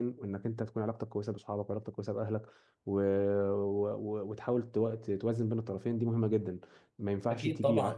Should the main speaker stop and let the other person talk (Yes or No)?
Yes